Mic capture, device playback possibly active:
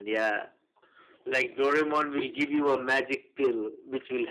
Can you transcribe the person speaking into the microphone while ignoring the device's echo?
none

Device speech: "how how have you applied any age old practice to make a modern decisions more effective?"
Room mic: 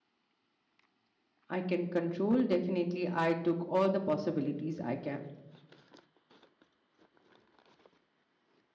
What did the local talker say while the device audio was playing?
I can control. Definitely, I took all the possibilities I can.

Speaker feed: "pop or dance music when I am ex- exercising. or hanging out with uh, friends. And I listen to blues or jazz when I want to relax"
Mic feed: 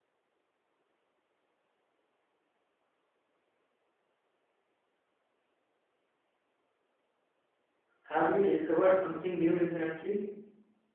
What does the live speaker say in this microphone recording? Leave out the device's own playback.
Have you discovered something new recently?

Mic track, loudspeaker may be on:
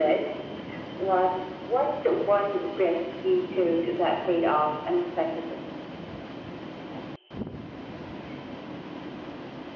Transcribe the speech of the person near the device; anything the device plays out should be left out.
none

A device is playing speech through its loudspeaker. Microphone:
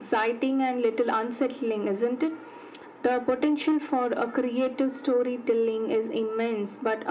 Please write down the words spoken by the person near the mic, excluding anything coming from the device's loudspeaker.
none

